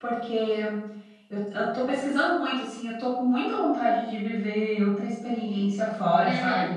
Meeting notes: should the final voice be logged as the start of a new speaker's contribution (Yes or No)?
No